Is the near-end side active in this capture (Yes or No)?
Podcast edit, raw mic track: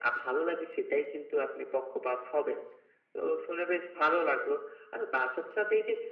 No